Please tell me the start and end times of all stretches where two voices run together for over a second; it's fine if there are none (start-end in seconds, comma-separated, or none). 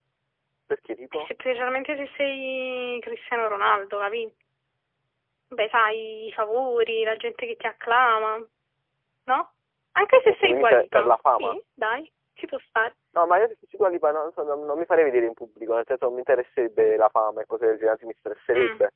10.2-11.6